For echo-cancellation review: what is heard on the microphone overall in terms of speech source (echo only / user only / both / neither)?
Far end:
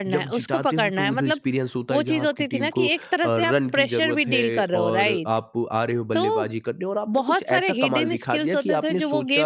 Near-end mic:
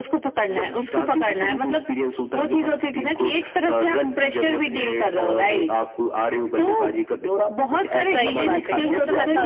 both